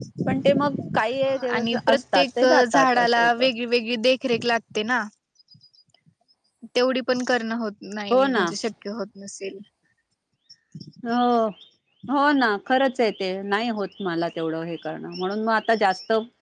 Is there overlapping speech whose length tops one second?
Yes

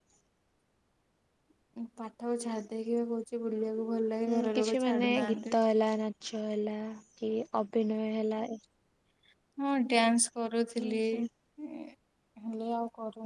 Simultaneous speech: Yes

